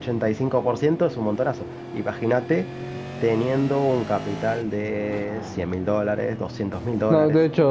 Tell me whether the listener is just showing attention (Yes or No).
No